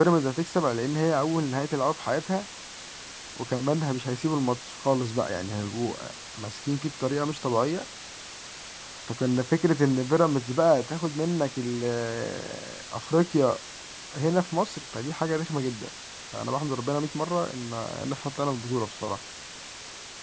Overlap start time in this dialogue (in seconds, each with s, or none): none